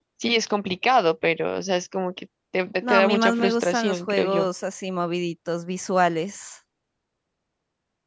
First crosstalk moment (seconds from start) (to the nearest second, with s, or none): 3 s